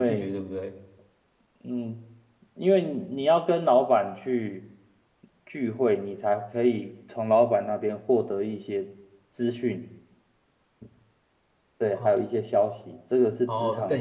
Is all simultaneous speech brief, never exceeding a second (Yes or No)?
Yes